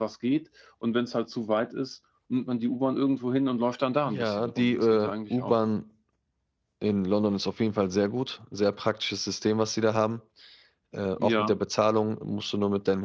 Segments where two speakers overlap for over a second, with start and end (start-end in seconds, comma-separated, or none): 4.0-5.6